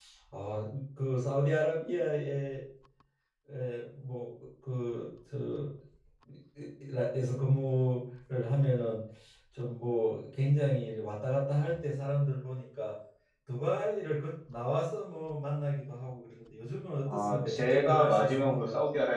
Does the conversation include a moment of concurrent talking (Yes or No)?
Yes